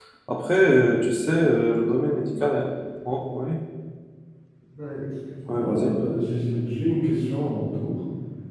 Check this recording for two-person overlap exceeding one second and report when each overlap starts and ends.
none

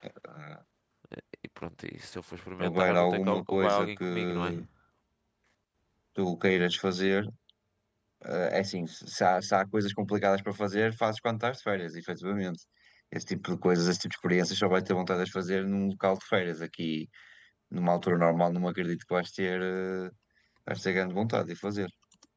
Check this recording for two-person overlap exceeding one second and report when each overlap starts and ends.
2.6-4.5

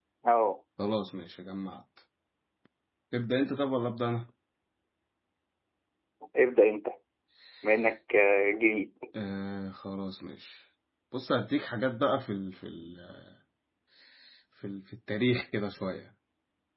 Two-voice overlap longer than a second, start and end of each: none

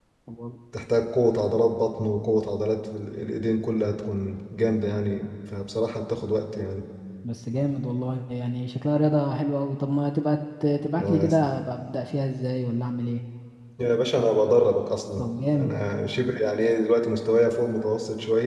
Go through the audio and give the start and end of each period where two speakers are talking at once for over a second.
none

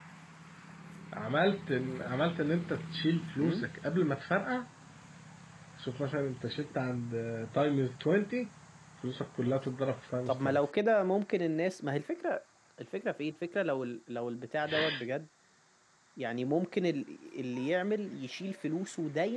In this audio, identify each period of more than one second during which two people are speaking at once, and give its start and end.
none

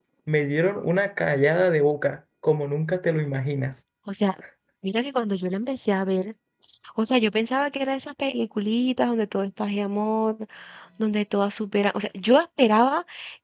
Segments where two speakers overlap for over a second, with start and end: none

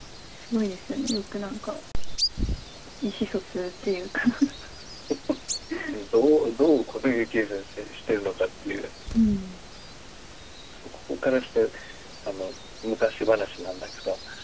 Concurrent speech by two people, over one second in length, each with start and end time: none

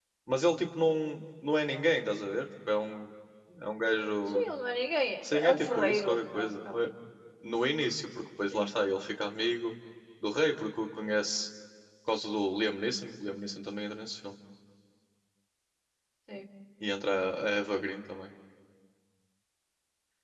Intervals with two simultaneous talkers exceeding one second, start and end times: 5.3-6.8

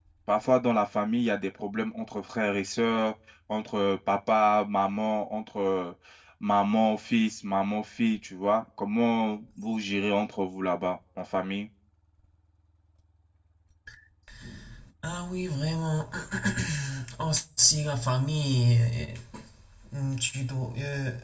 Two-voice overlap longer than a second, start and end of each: none

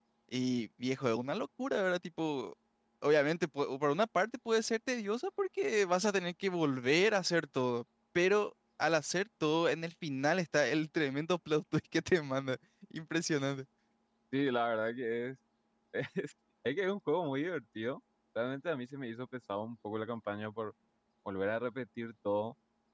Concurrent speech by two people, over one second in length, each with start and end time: none

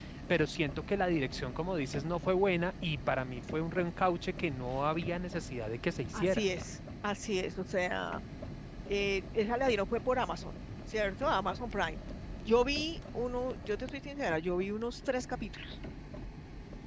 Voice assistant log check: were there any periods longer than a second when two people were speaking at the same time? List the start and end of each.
none

